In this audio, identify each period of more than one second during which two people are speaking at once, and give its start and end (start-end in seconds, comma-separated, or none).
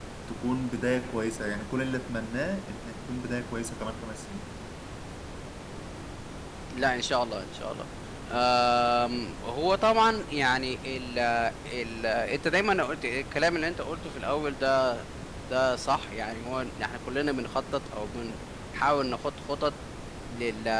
none